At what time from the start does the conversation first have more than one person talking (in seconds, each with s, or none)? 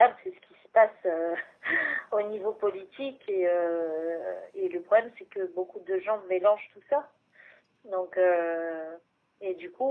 none